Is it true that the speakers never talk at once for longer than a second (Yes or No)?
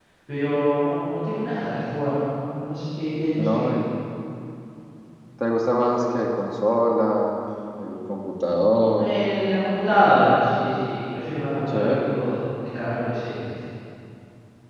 Yes